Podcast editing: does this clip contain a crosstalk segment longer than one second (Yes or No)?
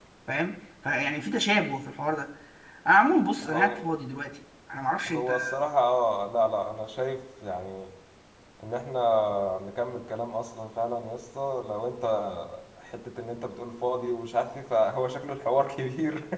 No